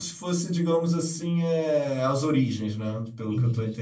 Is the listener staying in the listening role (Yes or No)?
No